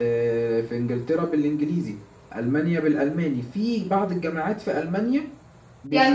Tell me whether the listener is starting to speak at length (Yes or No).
Yes